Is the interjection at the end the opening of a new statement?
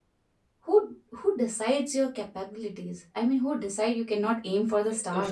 Yes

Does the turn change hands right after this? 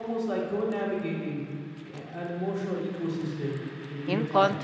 Yes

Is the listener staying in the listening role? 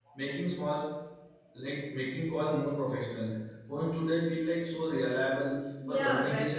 No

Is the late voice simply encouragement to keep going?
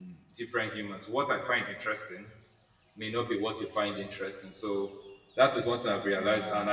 Yes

